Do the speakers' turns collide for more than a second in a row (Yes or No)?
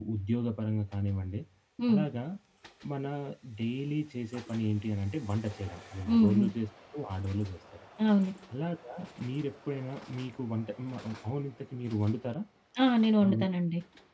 No